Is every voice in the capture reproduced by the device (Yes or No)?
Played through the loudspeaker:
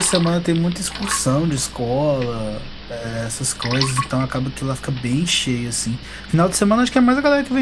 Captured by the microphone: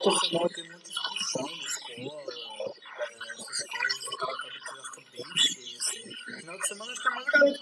Yes